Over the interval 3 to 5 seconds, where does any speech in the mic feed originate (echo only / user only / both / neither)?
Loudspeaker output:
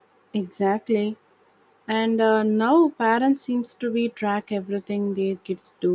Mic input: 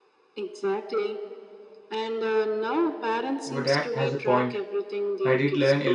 both